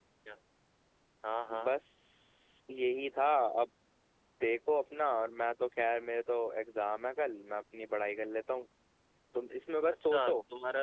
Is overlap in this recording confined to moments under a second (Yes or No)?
Yes